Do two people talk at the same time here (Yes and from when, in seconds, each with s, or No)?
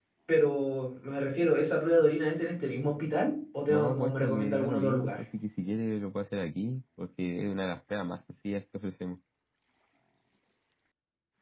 Yes, from 3.7 s